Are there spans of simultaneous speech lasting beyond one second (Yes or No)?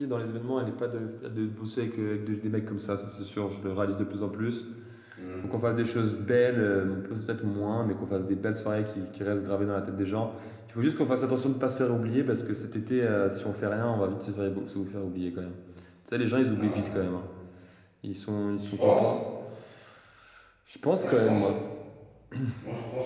No